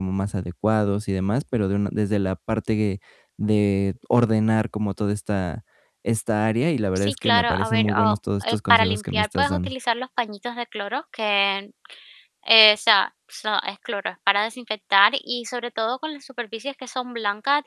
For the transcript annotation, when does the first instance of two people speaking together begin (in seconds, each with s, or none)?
7.0 s